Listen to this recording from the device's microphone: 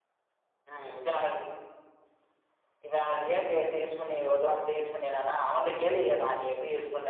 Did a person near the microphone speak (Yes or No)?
No